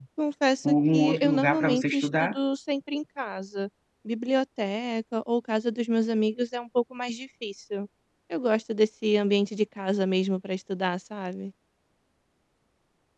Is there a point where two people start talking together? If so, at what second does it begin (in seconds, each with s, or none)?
0.7 s